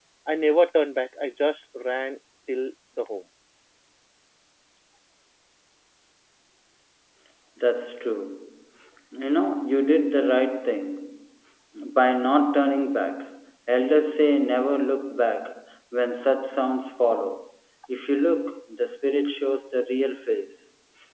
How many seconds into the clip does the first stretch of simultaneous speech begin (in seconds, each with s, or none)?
none